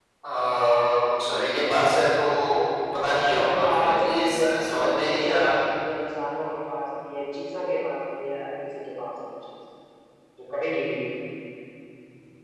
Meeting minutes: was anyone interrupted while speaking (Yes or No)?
Yes